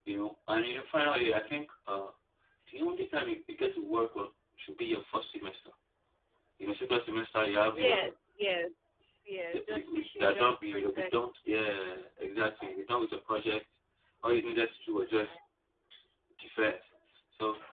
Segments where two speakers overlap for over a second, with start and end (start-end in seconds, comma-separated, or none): 9.5-11.1